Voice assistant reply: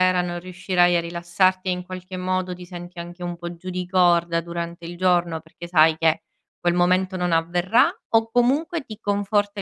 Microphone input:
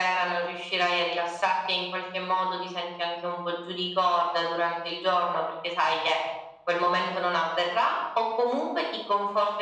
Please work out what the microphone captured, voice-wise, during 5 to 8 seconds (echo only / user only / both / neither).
echo only